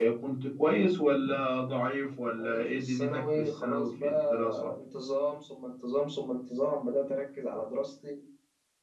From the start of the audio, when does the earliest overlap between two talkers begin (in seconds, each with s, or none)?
2.4 s